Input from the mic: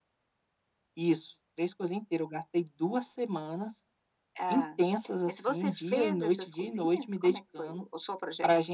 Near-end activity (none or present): none